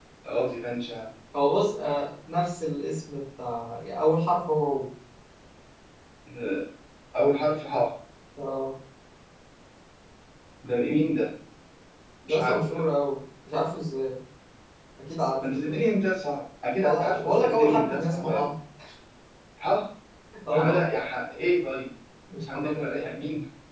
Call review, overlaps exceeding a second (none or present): present